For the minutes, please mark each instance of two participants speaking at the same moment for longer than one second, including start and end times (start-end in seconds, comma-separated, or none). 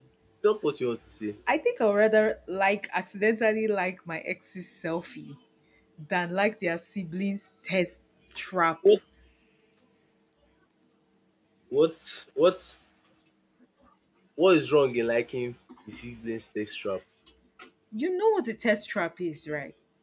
none